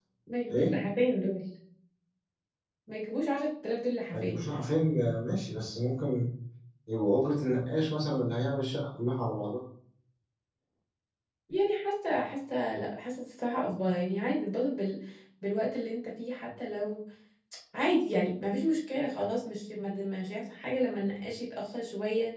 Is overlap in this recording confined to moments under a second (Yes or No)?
Yes